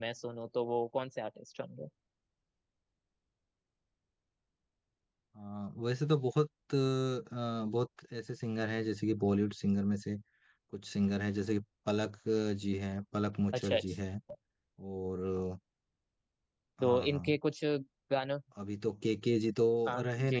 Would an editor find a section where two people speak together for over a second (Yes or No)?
No